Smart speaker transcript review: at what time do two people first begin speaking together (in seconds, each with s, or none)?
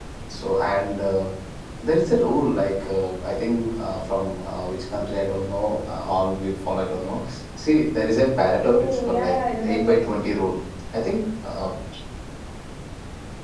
8.6 s